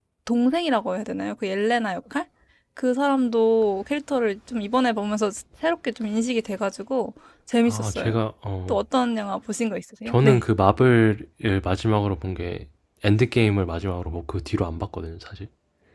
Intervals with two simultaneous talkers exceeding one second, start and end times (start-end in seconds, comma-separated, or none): none